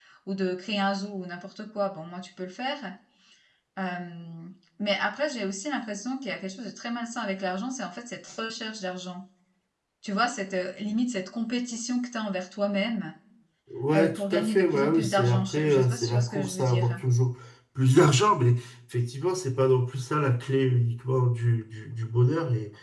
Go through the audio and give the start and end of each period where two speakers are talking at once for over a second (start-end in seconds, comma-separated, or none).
13.9-17.0